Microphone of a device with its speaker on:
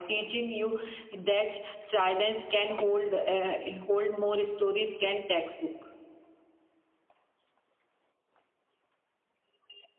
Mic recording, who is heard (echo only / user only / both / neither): echo only